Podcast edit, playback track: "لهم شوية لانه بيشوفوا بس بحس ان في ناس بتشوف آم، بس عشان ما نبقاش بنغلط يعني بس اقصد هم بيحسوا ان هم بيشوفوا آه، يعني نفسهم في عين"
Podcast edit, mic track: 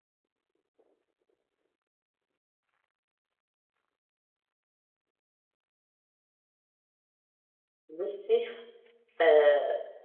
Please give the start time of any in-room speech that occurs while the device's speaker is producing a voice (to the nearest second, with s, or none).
8 s